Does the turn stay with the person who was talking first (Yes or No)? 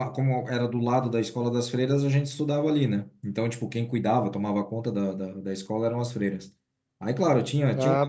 Yes